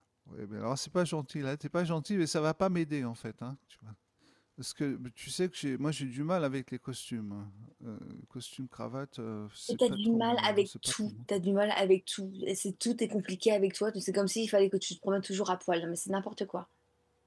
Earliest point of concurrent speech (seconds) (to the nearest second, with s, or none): 10 s